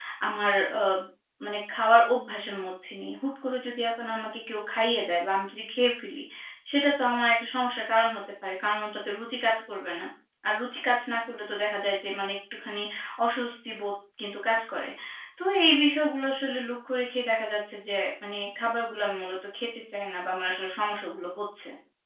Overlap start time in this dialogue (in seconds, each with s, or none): none